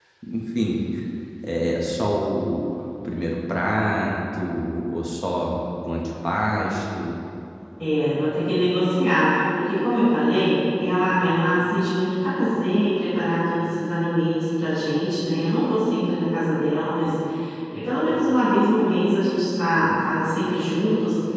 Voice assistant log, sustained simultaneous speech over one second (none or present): none